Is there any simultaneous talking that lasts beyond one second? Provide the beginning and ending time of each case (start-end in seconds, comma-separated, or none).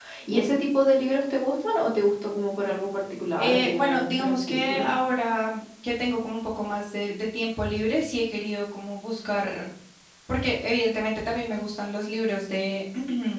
3.4-4.9